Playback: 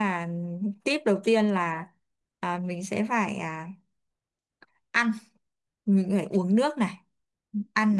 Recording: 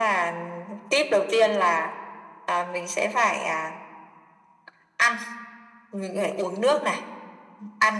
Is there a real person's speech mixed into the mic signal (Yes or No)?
No